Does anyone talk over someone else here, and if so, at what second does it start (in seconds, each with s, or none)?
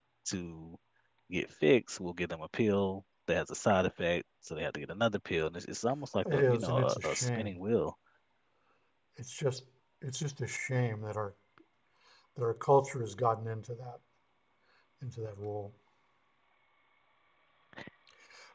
6.2 s